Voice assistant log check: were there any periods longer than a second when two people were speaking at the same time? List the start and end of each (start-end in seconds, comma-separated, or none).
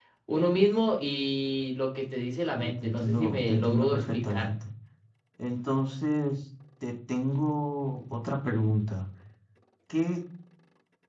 2.5-4.5